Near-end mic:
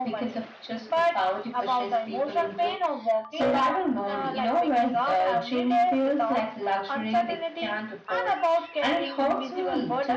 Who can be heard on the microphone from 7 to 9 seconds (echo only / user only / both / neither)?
echo only